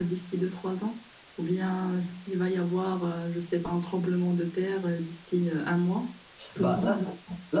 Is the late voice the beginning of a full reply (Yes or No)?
Yes